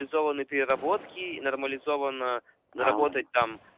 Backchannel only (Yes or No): Yes